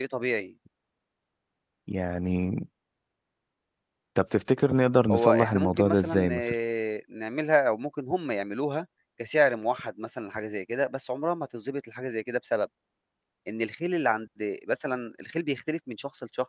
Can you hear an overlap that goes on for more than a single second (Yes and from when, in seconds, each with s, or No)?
Yes, from 5.1 s